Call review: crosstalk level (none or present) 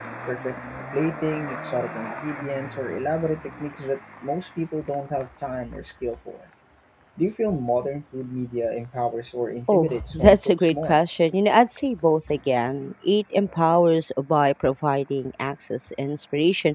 present